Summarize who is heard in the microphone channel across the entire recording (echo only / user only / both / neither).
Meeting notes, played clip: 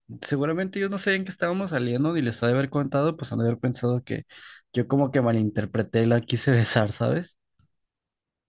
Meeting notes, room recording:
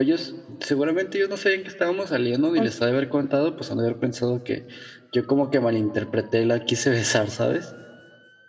both